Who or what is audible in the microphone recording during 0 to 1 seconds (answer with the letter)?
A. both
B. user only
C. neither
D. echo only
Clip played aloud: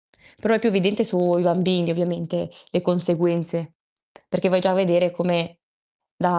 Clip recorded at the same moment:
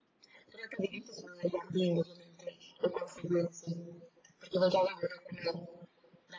D